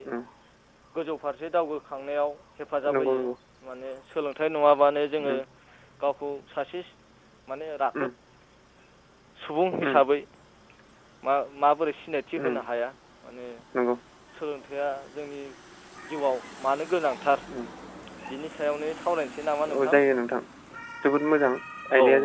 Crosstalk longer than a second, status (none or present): none